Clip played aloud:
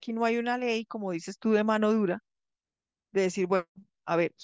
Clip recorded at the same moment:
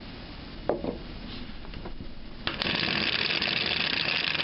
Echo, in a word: none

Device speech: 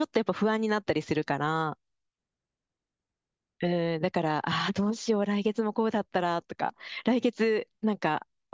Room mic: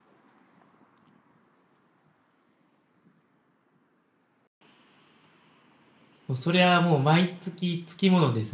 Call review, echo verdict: none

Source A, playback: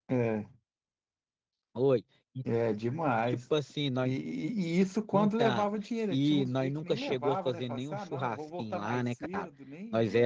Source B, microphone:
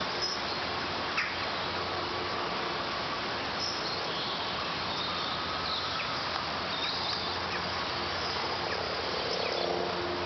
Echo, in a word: none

